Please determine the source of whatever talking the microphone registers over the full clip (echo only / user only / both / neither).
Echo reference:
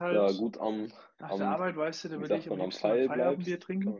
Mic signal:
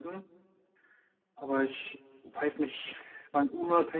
user only